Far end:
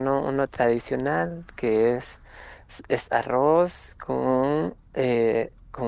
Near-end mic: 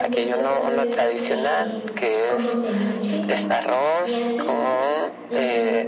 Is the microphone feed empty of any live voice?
No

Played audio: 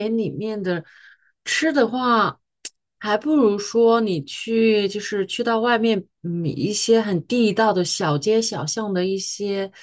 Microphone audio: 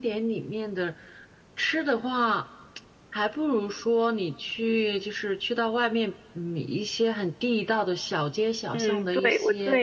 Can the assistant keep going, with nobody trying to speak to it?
No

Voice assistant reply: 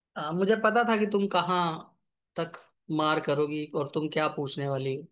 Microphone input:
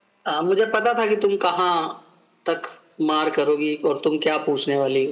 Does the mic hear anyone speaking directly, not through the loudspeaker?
No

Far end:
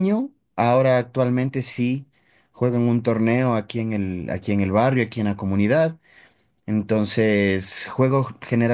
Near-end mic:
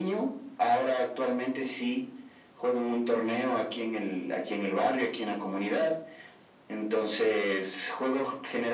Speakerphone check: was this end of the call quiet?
Yes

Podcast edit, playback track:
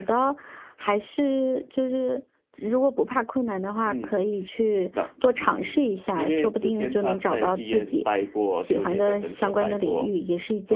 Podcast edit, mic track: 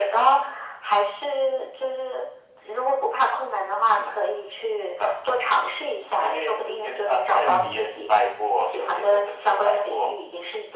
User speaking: Yes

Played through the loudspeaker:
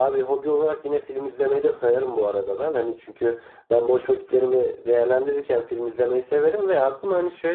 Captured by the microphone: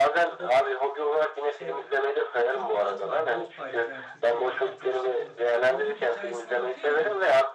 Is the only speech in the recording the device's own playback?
No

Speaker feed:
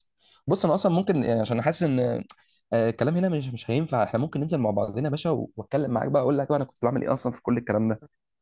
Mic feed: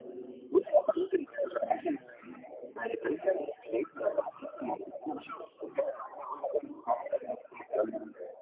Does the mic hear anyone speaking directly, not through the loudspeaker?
No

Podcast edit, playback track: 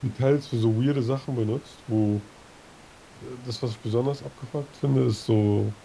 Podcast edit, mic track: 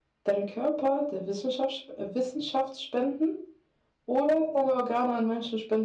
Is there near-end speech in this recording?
Yes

